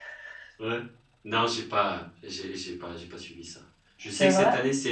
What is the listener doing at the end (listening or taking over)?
listening